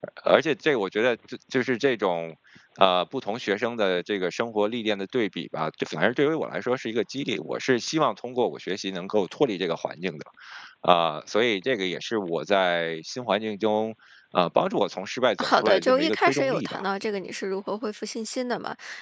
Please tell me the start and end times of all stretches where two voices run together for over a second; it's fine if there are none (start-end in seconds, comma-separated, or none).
15.4-16.8